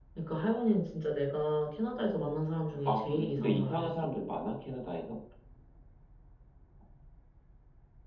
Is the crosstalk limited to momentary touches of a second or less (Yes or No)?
No